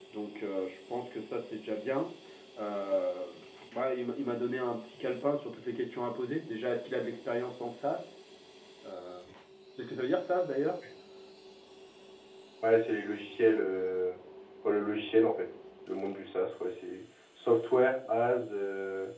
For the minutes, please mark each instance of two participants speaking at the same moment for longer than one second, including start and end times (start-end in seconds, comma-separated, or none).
none